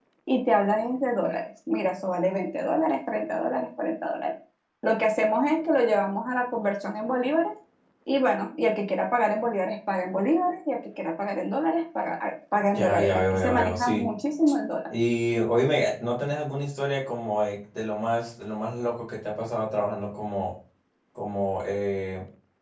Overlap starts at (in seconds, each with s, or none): 12.7 s